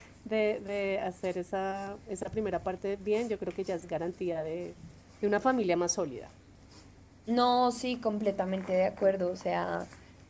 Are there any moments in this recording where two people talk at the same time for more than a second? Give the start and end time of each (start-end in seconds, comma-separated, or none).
none